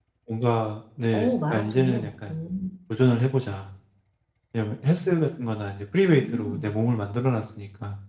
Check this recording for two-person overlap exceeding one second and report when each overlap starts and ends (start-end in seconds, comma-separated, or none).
1.1-2.4